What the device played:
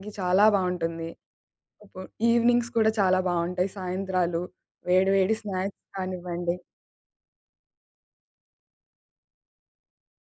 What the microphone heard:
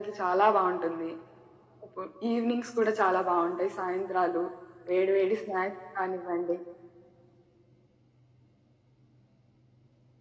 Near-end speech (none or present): none